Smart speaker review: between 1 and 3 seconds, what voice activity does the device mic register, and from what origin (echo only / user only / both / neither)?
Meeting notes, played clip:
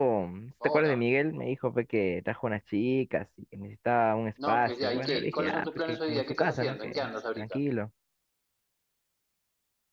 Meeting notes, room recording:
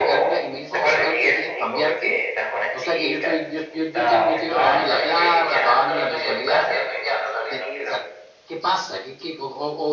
both